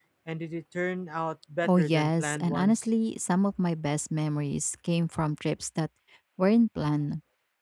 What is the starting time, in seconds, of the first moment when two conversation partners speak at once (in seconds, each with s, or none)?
1.6 s